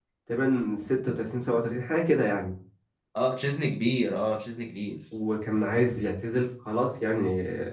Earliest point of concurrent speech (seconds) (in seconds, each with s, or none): none